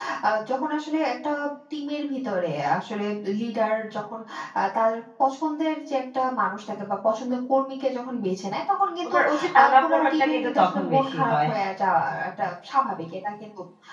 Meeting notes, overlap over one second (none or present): present